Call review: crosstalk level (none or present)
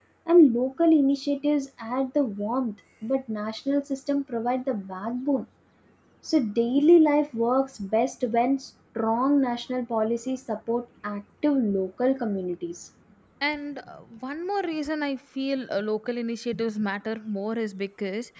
none